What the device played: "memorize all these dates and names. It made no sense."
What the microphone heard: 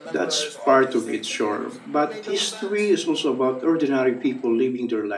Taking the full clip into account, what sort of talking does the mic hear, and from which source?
both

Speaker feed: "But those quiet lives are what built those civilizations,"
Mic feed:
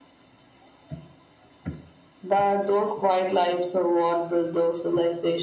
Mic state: echo only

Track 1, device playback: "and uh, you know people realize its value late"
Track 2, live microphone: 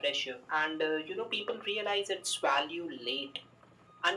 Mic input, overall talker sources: echo only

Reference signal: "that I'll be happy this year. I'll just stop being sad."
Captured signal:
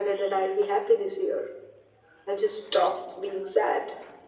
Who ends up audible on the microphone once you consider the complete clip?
echo only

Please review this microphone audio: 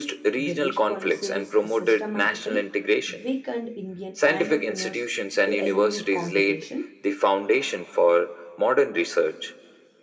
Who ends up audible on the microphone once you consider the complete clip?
both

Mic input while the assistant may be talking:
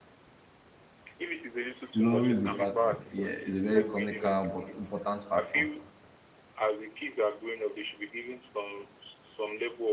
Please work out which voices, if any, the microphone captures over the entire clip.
both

